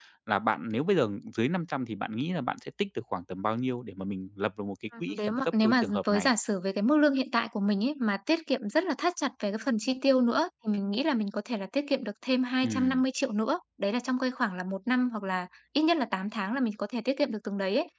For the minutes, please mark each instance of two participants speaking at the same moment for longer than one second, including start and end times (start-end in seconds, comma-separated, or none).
5.0-6.3